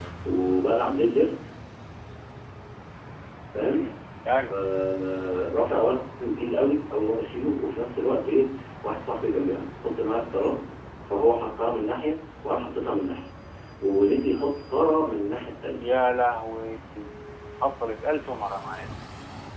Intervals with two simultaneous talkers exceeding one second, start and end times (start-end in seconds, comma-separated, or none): none